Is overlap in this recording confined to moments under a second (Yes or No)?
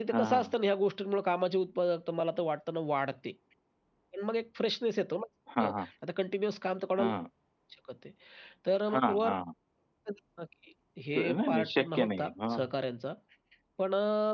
No